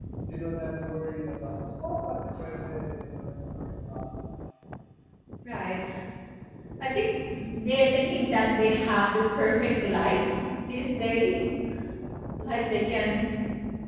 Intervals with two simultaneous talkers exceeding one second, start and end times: none

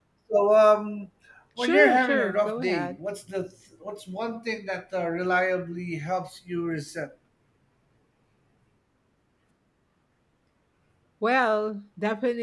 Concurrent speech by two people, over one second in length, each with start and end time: 1.6-3.0

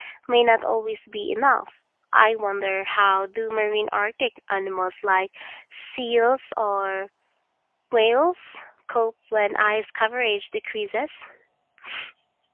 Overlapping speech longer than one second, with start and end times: none

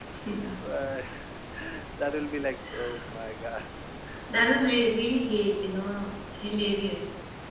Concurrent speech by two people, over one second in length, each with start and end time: none

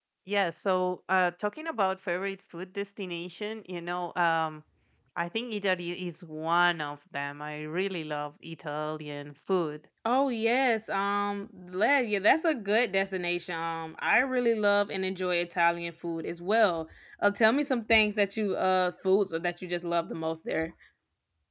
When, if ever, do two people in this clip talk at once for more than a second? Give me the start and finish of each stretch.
none

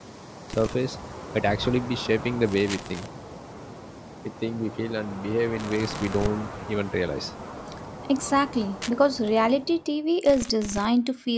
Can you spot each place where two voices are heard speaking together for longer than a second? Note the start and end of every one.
none

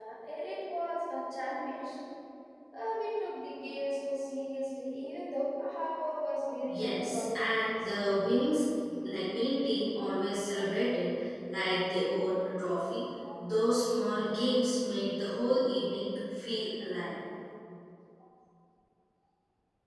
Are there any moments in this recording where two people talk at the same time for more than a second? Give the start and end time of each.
6.7-7.9

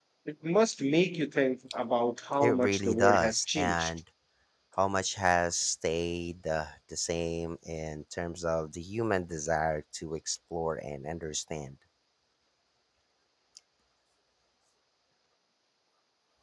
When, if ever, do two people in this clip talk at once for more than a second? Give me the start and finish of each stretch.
2.4-3.9

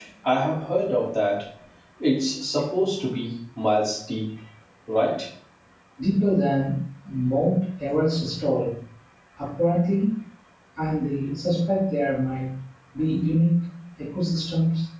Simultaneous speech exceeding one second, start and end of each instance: none

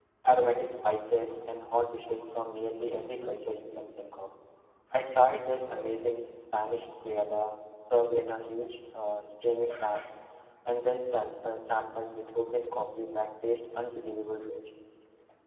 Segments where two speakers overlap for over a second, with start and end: none

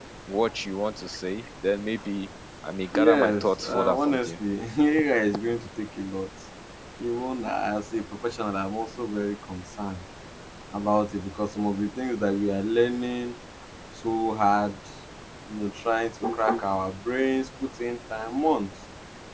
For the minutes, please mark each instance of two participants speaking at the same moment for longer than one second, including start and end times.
2.9-4.3

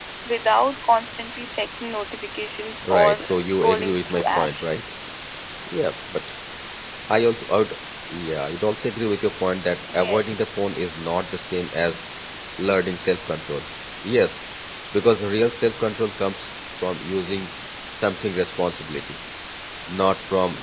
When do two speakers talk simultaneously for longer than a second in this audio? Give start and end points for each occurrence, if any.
2.9-4.7

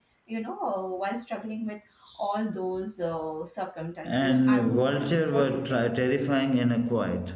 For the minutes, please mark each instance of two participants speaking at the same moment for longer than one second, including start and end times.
4.0-5.8

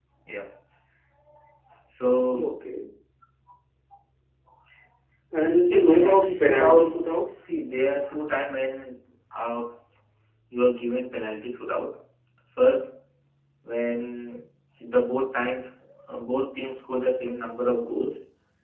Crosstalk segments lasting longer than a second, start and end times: 5.7-6.9

